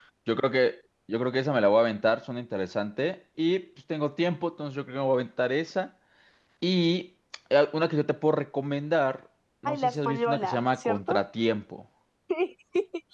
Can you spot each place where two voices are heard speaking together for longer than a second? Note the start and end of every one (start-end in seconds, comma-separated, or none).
9.7-11.2